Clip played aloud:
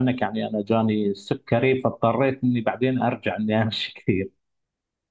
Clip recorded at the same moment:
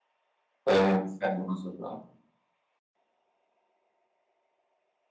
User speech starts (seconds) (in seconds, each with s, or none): 0.7 s